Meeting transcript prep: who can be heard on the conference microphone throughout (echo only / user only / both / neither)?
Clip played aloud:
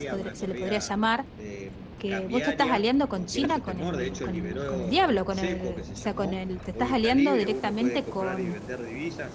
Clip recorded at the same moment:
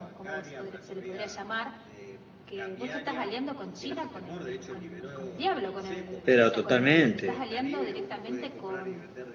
both